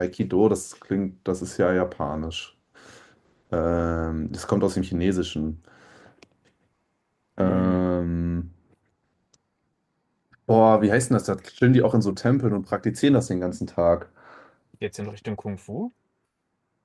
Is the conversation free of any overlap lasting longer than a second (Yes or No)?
Yes